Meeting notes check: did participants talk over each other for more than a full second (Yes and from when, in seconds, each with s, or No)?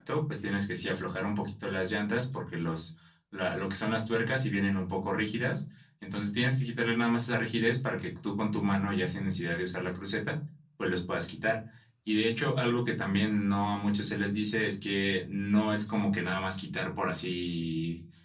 No